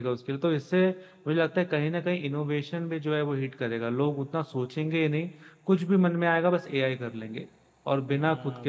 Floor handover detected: Yes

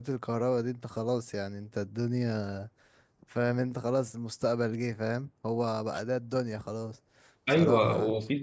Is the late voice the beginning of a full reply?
Yes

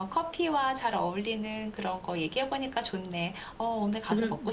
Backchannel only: No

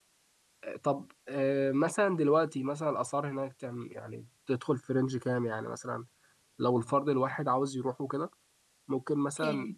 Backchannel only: Yes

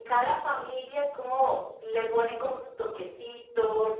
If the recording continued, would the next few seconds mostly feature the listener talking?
No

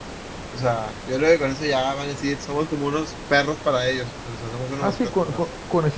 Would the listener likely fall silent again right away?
No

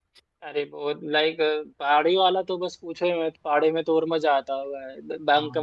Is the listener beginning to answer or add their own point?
No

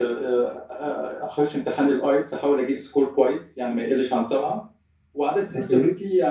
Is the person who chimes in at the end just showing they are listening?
Yes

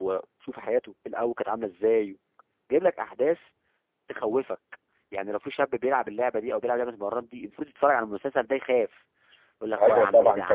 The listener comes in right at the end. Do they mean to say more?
Yes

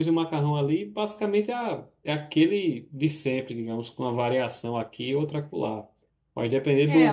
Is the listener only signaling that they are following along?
No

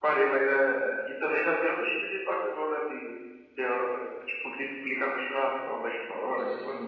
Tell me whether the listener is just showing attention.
No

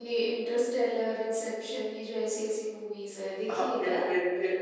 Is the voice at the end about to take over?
Yes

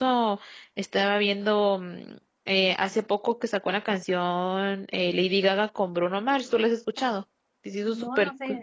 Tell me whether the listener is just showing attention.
No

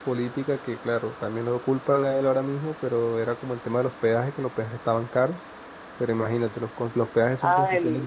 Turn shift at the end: Yes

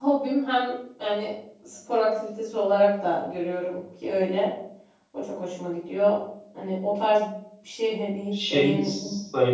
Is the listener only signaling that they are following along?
No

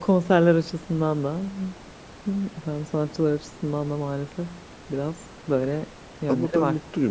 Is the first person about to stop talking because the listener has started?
Yes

